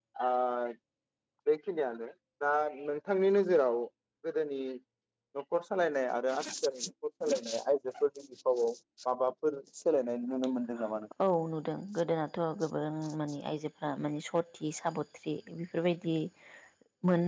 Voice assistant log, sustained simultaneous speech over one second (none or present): none